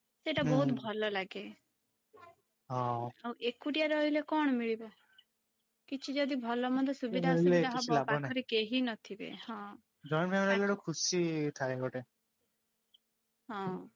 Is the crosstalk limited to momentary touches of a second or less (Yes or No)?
No